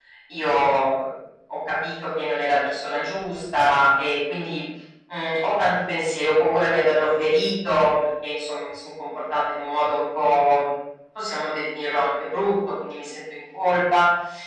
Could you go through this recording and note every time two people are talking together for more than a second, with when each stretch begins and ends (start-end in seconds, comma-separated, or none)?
none